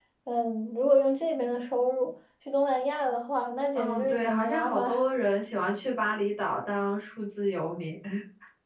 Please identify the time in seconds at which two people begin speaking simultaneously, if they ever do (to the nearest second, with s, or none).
4 s